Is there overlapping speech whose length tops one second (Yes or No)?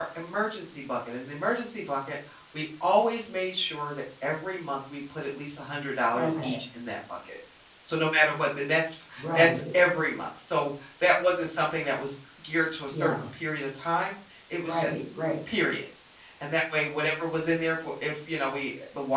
No